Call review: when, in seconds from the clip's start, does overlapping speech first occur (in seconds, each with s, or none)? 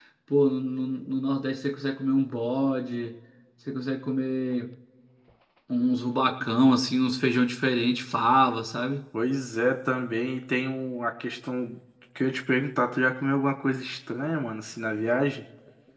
none